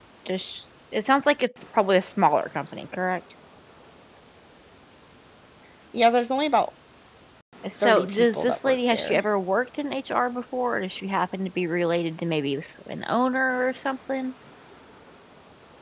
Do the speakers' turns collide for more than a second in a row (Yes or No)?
Yes